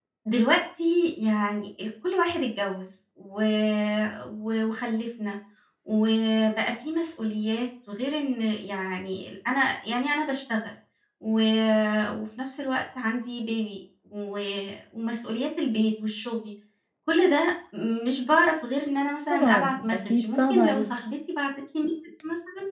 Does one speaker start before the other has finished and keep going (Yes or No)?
Yes